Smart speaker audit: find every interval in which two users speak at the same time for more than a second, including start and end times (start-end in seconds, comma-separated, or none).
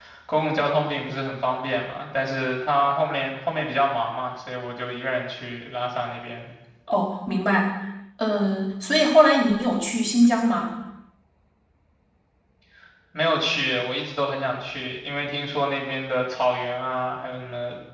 none